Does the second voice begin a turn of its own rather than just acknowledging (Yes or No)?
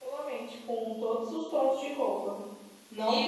Yes